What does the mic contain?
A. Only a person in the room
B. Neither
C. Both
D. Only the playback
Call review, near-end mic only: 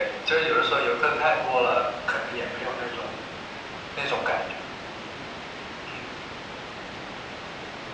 D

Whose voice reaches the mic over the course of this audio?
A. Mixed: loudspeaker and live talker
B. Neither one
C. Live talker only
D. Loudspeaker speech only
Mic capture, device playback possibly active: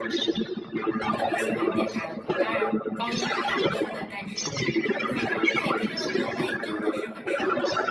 A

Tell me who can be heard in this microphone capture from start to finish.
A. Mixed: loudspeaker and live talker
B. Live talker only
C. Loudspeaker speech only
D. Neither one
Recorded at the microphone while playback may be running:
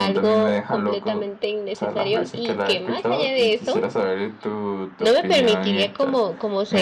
A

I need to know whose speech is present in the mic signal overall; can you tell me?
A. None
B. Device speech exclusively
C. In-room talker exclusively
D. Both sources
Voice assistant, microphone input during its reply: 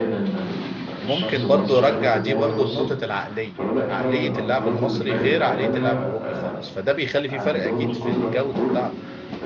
D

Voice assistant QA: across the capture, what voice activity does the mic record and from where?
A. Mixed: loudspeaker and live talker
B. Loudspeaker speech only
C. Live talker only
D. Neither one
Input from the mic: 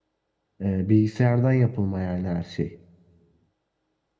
C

